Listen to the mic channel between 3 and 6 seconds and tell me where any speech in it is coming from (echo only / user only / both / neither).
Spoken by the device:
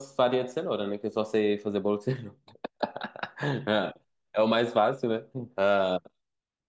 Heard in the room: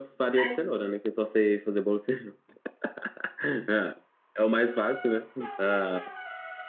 echo only